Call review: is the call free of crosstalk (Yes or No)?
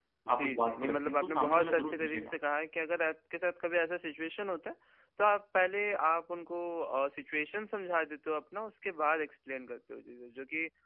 No